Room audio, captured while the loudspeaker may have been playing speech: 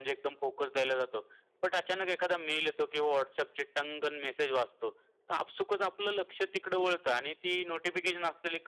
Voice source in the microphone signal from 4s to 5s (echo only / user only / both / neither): echo only